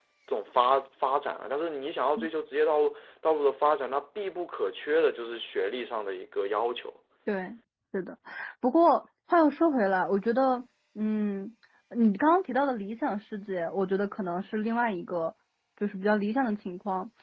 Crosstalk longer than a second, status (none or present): none